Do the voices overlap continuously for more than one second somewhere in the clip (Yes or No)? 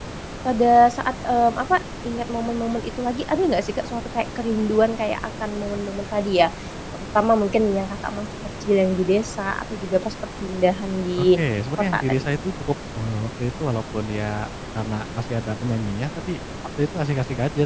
No